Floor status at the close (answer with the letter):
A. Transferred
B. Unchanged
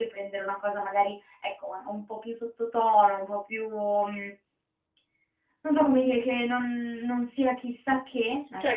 A